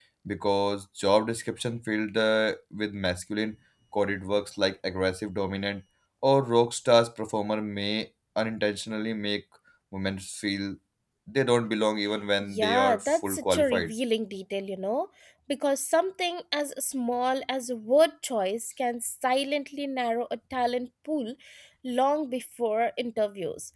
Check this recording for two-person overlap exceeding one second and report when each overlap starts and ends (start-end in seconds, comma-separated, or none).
12.4-13.9